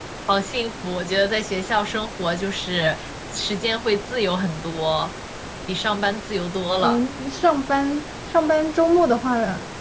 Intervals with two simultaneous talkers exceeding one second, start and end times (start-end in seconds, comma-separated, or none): none